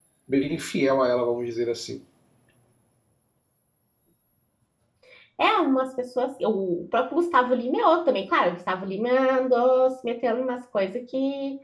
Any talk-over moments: No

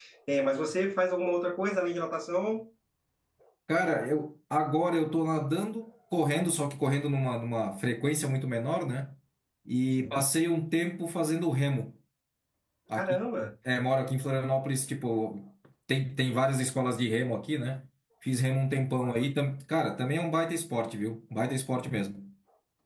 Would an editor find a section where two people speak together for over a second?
No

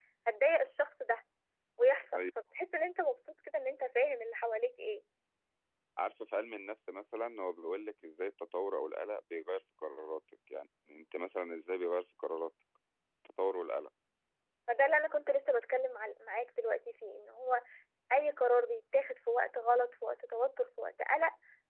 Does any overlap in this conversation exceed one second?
No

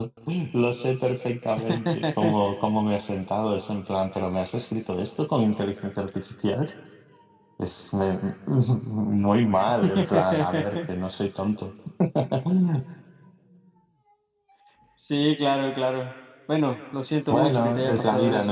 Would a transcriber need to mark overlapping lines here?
Yes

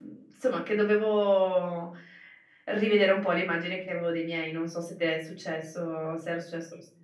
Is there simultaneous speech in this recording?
No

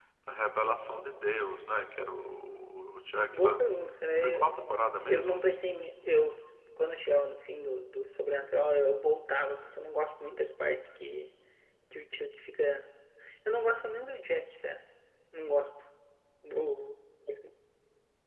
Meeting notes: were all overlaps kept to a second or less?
Yes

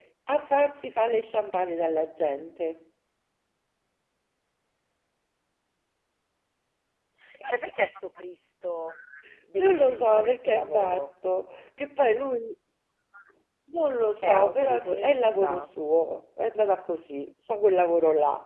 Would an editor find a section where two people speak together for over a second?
Yes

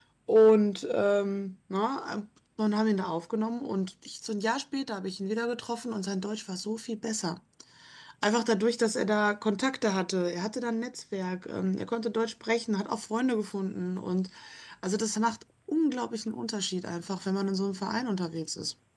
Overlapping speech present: No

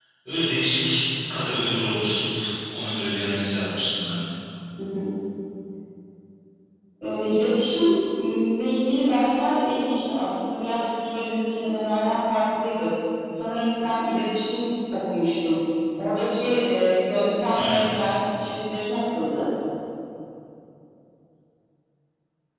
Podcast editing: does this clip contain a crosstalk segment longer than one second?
No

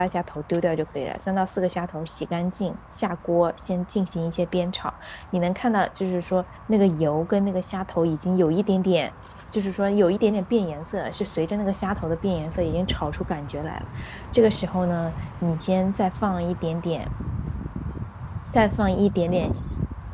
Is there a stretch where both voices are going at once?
No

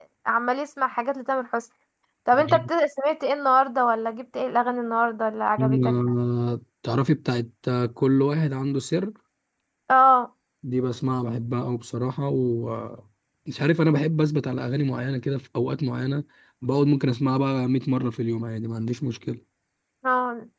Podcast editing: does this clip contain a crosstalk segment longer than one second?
No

